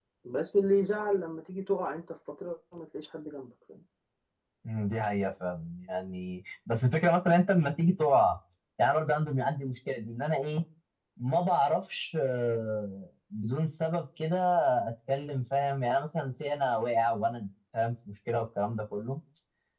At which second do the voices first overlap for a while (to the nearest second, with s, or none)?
none